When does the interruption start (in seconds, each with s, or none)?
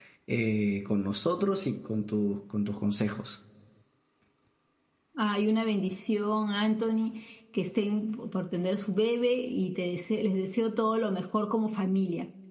none